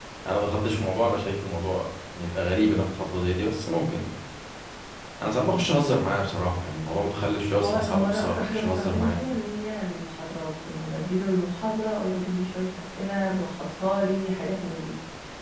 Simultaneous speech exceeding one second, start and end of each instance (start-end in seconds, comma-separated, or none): 7.6-9.2